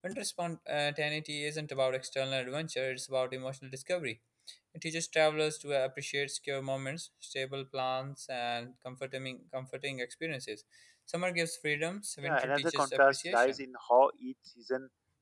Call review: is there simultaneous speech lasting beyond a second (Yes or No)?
Yes